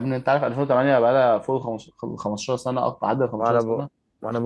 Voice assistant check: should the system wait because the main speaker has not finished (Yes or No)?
No